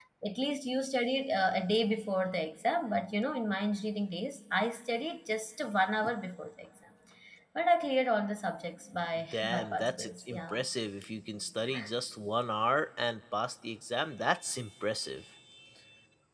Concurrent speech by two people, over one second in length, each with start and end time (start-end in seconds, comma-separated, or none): 9.3-10.6